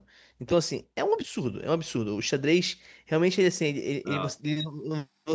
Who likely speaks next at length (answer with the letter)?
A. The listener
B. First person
B